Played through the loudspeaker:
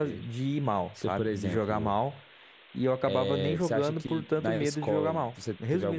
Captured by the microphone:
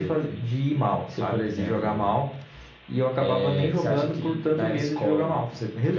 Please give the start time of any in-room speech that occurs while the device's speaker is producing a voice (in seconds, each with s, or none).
none